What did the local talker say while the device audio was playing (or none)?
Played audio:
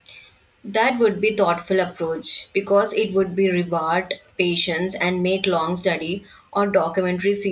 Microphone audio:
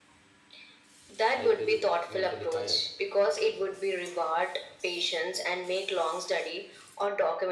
I feel mentally tired,